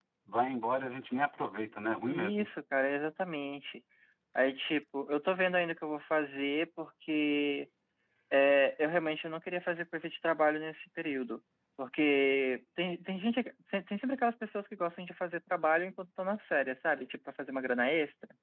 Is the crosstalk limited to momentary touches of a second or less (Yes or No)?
Yes